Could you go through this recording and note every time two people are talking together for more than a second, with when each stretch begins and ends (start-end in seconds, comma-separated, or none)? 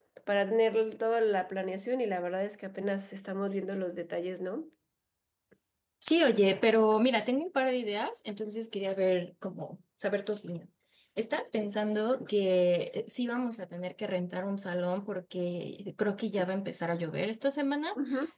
none